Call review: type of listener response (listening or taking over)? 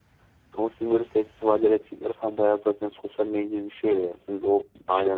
taking over